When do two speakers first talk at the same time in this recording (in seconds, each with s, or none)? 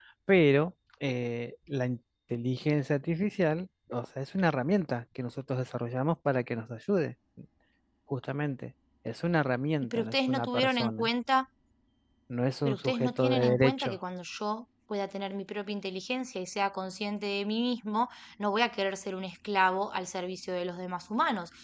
9.8 s